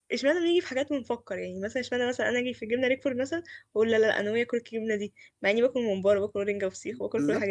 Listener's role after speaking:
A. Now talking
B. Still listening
A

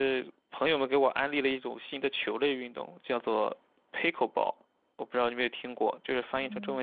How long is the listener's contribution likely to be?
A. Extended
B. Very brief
A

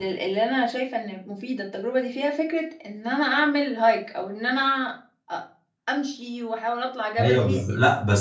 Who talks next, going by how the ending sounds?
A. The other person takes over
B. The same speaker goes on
A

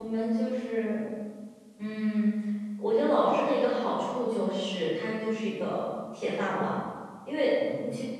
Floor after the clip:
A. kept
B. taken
A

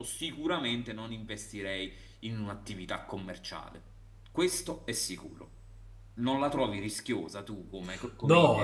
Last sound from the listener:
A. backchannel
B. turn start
B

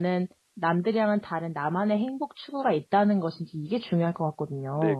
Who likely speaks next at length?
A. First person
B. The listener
B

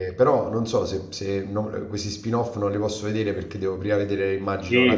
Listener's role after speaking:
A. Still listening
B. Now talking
B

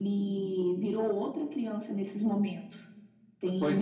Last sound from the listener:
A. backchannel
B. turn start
B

